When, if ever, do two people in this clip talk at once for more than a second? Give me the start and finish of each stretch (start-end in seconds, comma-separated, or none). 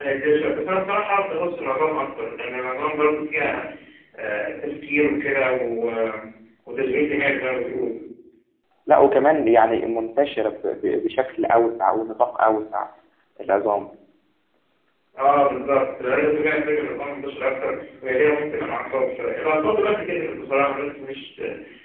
none